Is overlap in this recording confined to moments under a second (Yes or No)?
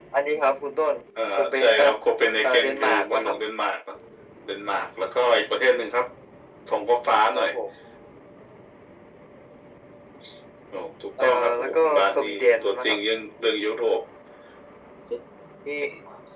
No